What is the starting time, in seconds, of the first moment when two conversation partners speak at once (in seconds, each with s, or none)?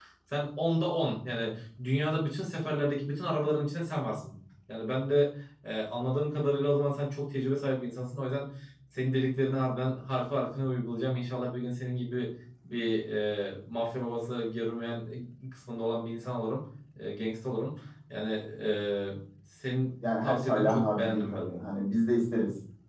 20.0 s